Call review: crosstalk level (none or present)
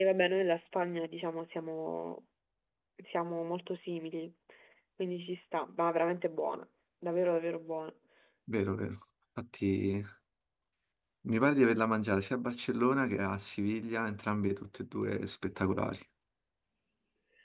none